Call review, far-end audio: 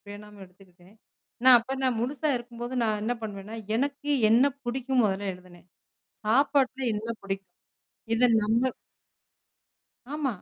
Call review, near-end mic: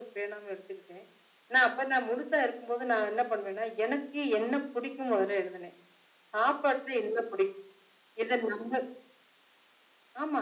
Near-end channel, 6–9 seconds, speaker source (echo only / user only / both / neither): echo only